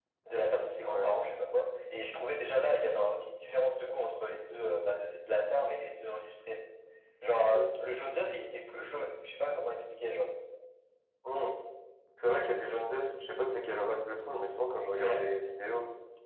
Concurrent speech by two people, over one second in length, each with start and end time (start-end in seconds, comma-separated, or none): none